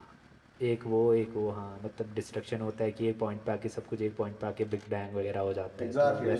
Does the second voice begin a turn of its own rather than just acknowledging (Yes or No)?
Yes